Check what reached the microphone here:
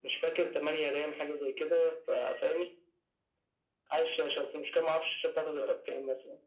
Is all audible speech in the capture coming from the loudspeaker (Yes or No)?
Yes